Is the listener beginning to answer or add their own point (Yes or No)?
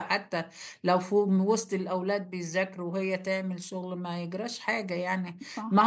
No